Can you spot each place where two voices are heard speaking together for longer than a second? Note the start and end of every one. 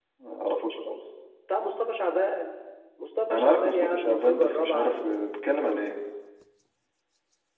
3.3-5.2

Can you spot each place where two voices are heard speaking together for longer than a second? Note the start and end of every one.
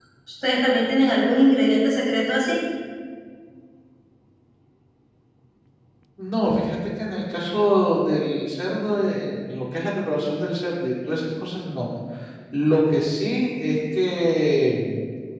none

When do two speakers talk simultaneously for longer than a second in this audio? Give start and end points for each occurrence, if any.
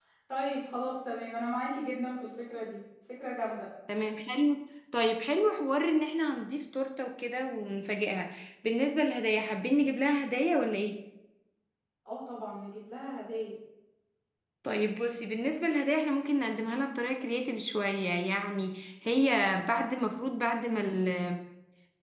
none

